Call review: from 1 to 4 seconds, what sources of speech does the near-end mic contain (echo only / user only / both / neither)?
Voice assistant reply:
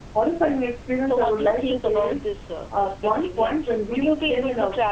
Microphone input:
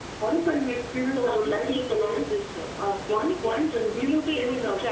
echo only